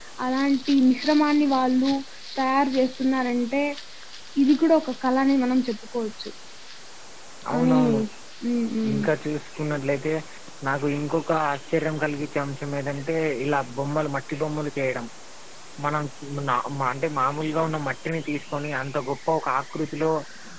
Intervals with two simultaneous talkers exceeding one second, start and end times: none

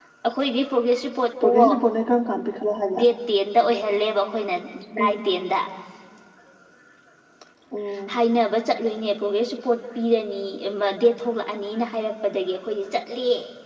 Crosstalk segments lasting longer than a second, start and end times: none

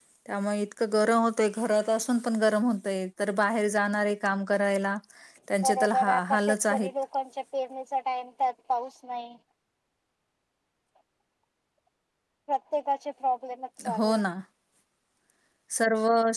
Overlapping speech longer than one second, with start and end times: 5.6-6.9

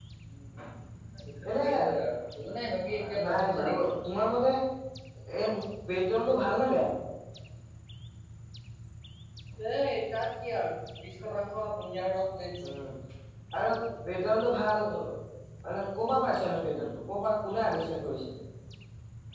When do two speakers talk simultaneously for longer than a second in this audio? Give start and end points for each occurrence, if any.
2.9-4.1

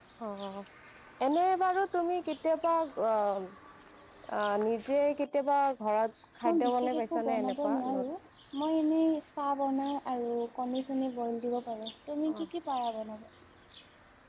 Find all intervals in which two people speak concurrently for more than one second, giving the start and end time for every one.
6.5-8.0

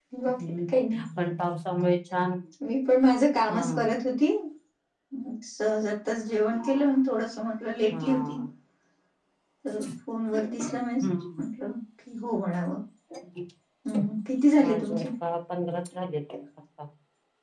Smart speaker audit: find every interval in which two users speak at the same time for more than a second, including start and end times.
none

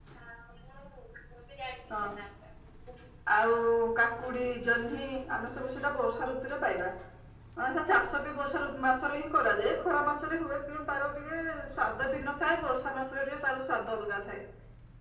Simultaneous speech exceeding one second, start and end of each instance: none

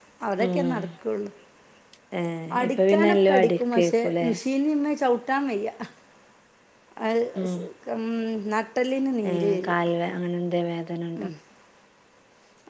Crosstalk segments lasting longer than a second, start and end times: 2.6-4.3

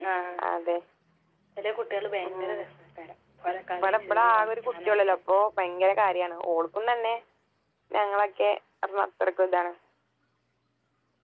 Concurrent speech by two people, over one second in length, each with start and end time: 3.8-5.2

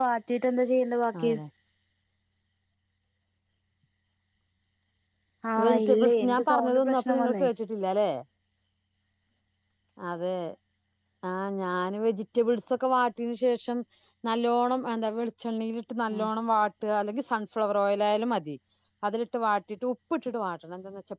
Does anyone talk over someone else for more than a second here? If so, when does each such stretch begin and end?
5.6-7.4

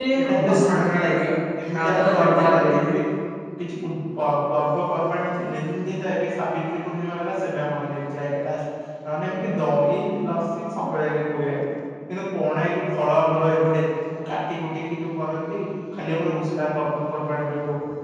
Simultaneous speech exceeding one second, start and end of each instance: 1.7-3.0

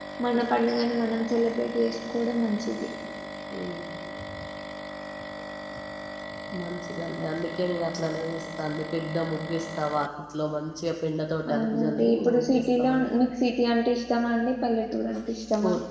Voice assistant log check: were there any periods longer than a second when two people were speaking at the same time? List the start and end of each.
11.6-13.1

